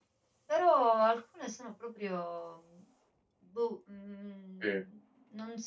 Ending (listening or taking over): listening